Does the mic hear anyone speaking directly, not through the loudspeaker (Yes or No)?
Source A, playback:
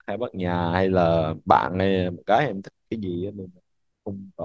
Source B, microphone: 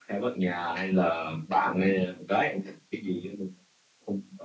No